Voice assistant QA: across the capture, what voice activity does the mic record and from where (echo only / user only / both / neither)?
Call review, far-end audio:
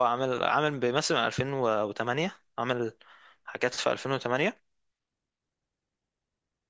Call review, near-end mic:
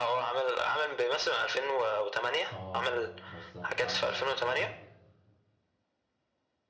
both